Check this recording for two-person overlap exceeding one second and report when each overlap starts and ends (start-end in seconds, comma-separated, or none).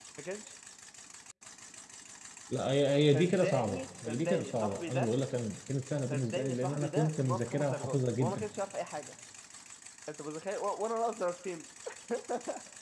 3.1-5.1, 6.1-8.5